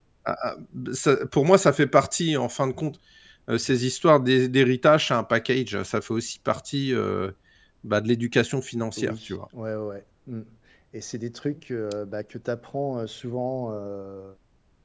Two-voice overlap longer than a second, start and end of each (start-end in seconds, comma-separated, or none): none